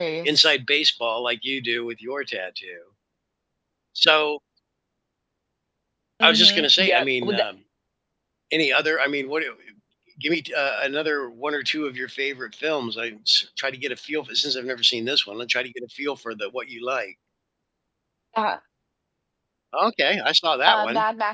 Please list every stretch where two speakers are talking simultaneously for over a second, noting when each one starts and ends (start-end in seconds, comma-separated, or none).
6.2-7.4